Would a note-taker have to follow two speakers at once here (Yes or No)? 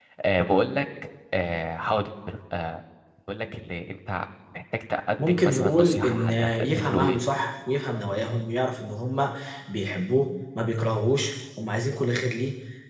Yes